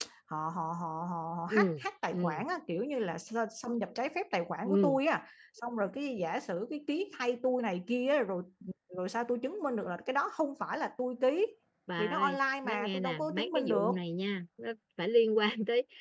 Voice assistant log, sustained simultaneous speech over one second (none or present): present